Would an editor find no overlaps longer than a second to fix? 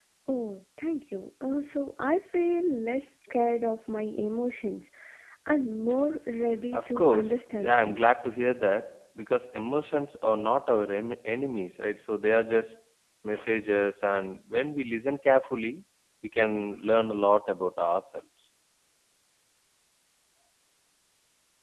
No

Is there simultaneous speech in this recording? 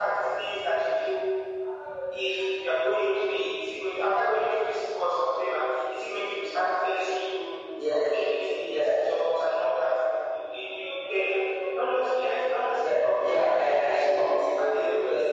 Yes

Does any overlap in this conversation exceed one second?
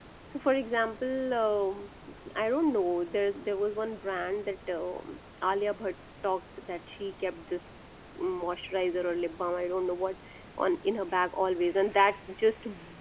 No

